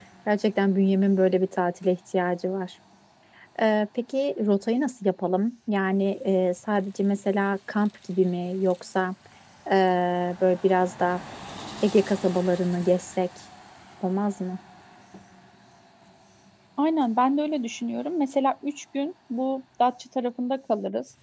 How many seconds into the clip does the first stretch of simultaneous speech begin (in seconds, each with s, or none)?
none